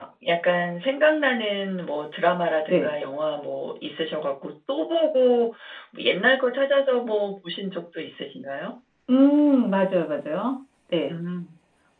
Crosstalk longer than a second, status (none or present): none